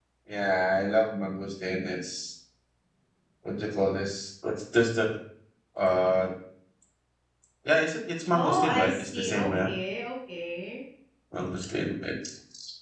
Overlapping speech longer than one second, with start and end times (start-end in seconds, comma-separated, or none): 8.3-9.7